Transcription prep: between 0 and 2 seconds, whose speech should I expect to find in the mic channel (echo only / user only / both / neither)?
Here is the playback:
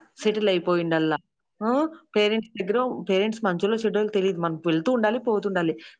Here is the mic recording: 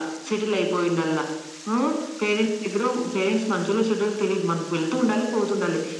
echo only